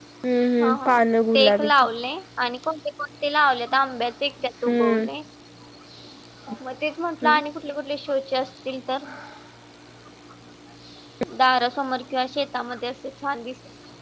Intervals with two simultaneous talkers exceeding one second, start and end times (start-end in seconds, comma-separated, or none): none